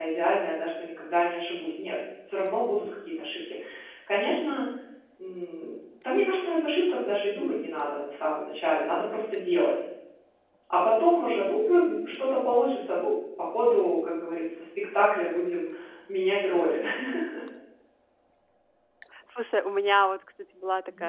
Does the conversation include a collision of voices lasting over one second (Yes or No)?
No